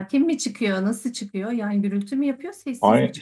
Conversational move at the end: taking over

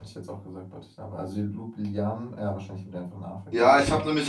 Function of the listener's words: taking over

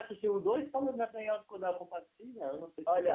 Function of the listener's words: taking over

